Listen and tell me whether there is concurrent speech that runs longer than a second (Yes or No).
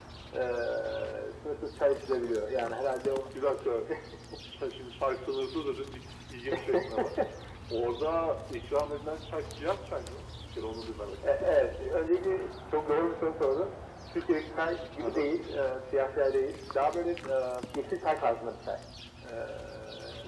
No